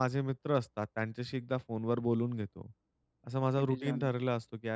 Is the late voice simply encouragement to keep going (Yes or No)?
Yes